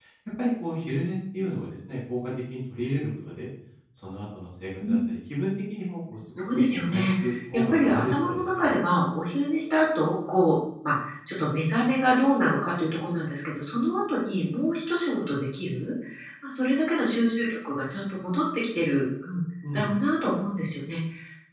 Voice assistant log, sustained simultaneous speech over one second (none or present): present